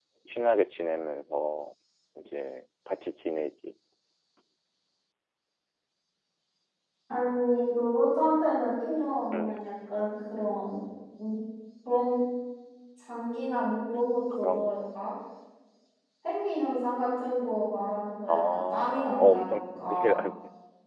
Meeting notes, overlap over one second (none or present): present